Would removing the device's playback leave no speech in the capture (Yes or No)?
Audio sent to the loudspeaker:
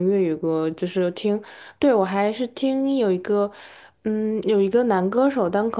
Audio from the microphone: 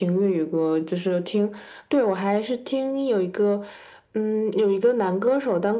Yes